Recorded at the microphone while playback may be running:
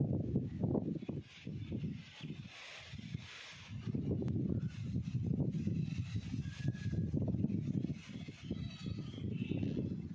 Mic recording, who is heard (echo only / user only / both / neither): neither